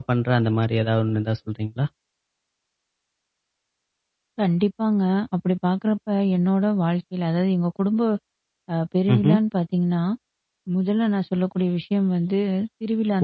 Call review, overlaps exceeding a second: none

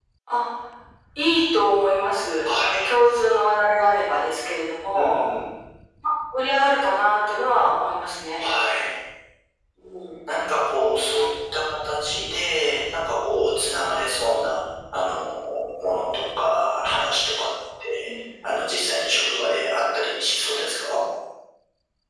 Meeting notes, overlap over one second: none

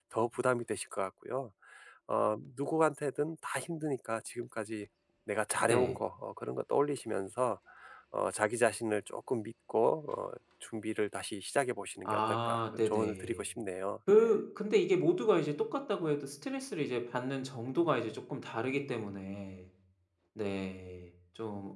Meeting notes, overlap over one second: present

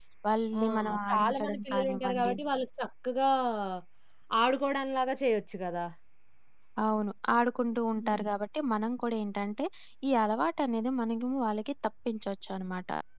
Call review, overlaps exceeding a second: present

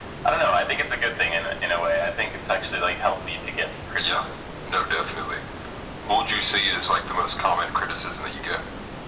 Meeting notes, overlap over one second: none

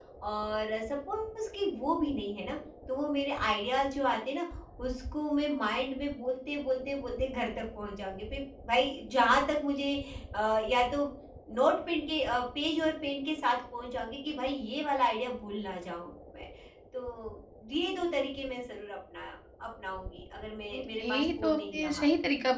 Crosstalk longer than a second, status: present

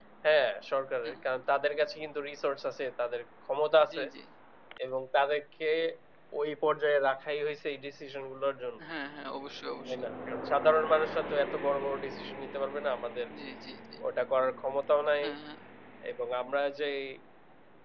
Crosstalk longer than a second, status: none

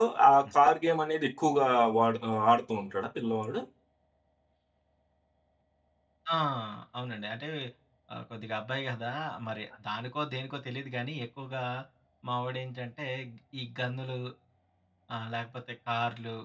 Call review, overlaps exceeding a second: none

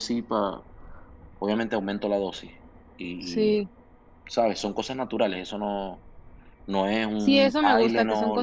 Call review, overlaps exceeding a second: present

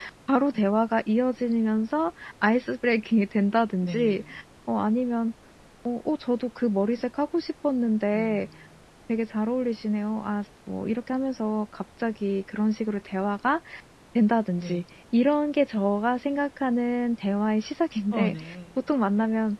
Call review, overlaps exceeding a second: none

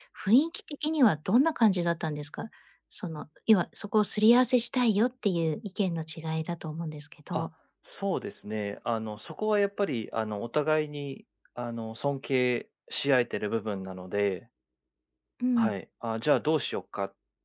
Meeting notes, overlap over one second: none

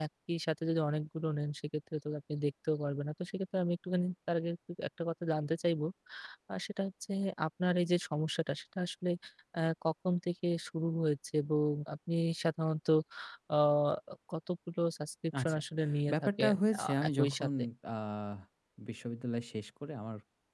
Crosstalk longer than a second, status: present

